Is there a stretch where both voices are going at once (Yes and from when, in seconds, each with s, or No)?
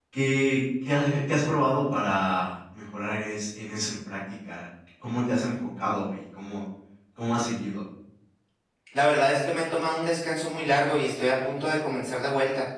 No